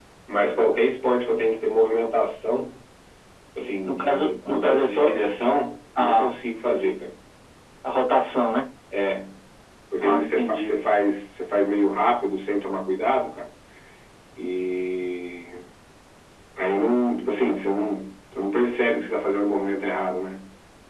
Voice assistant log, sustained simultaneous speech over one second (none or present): present